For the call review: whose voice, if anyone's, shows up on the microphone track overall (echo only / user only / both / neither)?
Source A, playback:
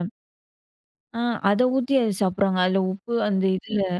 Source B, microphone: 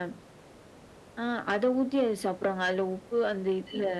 echo only